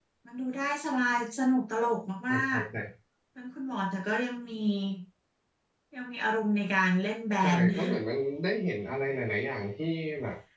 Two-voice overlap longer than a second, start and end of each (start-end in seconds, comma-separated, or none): none